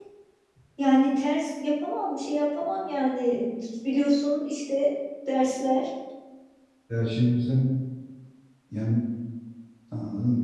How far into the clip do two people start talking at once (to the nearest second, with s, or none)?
none